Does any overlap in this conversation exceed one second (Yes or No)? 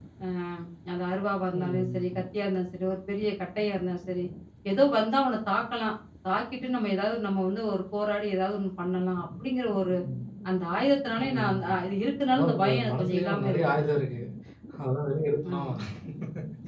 Yes